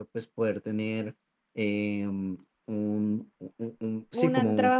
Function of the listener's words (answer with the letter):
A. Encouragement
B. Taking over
B